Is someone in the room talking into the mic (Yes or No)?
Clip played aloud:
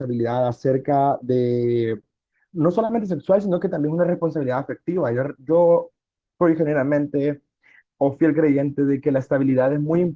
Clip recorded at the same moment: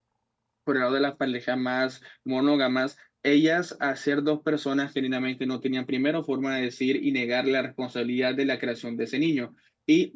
Yes